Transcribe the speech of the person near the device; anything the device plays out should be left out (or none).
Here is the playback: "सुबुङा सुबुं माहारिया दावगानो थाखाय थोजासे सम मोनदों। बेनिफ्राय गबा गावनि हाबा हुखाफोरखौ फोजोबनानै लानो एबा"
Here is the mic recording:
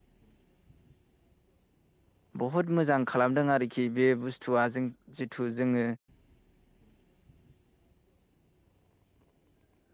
बहुद मोजां खालामदों आरोखि बे बुस्थुआ जों जिथु जोङो